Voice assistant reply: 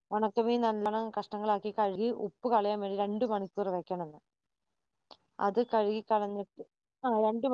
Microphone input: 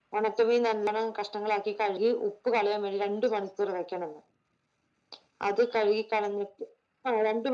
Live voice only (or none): none